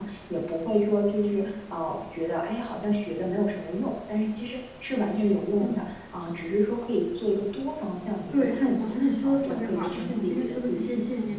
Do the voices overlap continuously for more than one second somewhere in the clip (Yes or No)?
Yes